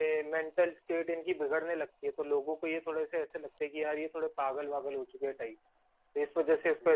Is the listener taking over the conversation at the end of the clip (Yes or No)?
No